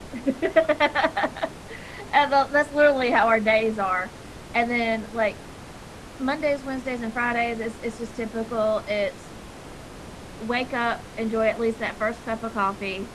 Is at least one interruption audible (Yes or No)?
No